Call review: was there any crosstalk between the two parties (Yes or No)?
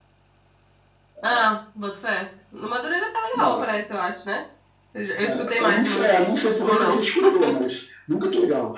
Yes